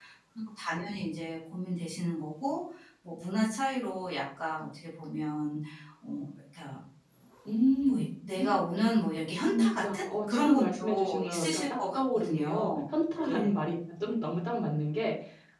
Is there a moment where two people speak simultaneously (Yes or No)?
Yes